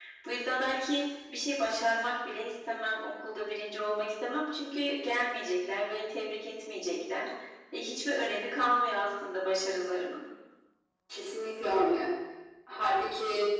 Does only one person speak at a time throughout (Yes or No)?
Yes